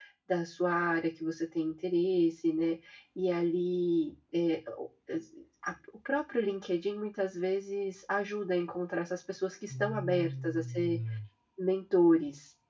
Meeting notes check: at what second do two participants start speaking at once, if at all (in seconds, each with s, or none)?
9.7 s